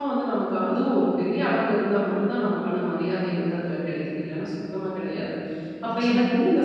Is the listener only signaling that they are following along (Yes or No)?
Yes